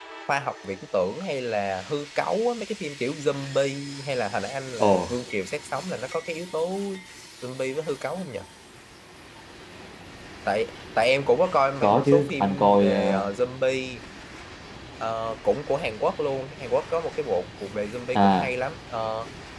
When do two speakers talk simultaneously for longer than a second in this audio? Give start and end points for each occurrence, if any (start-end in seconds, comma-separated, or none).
11.8-13.3